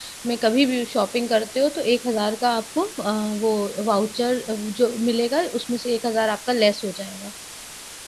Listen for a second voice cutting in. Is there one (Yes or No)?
No